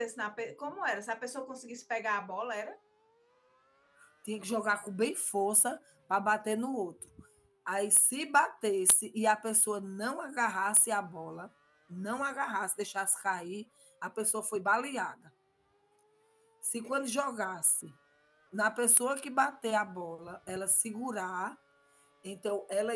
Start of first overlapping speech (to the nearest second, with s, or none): none